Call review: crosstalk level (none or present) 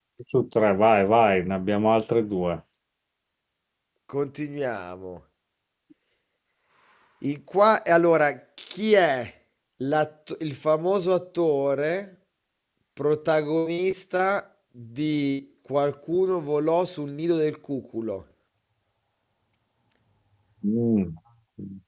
none